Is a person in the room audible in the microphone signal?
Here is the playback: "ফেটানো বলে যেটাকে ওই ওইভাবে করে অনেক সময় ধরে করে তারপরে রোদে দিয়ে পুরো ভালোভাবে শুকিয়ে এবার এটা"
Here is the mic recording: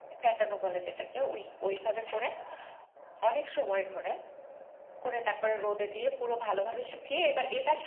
No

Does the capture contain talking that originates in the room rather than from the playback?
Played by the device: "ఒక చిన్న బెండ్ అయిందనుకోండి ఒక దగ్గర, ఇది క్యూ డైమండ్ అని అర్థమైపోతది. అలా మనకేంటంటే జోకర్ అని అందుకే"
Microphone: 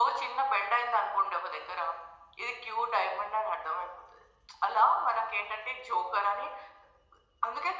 No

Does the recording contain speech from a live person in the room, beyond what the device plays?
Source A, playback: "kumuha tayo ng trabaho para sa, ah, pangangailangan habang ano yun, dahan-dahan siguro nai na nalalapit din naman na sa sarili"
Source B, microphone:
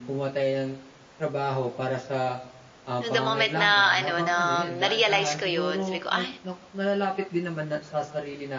Yes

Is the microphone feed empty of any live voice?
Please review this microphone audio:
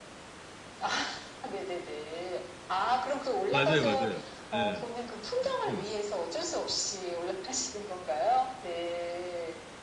No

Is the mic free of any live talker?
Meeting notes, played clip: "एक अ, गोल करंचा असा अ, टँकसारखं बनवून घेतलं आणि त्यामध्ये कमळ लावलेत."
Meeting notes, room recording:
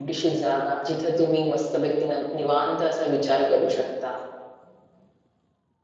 No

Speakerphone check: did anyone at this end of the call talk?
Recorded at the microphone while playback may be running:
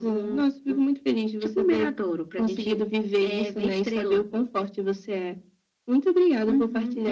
No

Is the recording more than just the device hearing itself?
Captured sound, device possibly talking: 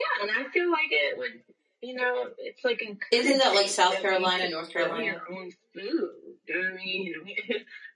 Yes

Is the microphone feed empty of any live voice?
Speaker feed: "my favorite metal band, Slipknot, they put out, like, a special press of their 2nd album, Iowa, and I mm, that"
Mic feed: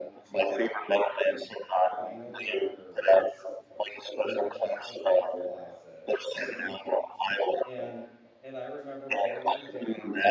No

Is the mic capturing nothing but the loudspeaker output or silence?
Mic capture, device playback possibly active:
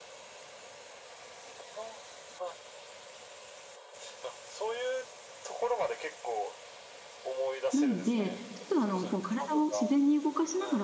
No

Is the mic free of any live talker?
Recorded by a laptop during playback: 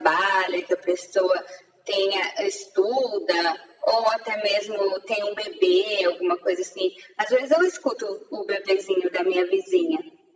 Yes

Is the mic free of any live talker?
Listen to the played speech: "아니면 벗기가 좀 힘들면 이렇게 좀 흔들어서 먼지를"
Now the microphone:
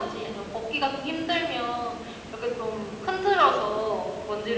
Yes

